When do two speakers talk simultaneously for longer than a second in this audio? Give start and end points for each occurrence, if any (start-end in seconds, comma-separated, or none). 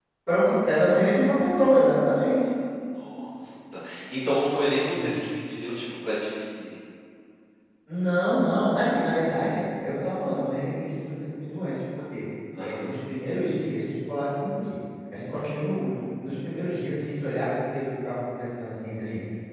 none